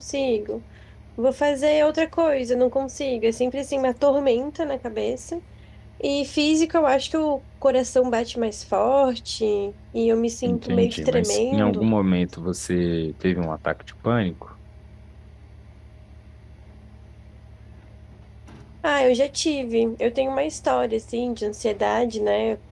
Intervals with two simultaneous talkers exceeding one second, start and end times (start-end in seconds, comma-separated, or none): 10.4-11.8